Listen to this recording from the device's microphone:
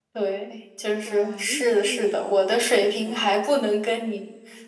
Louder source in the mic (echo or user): echo